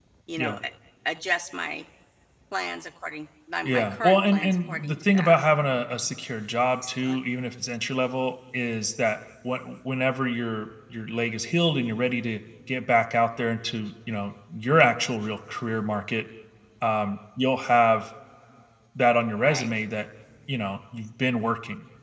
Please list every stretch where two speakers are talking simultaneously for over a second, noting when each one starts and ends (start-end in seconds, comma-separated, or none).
3.6-5.4